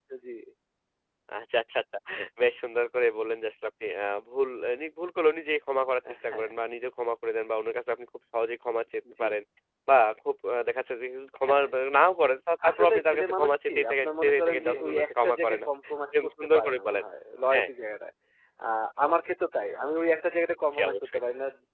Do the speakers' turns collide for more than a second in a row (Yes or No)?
Yes